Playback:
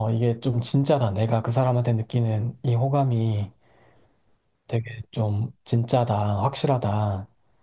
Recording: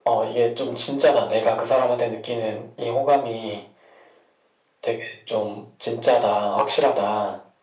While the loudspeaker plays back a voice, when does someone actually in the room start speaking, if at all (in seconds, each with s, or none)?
none